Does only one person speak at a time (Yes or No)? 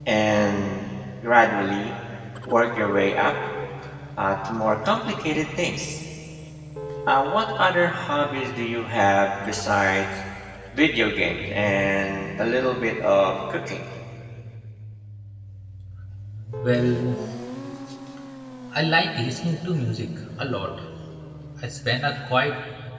Yes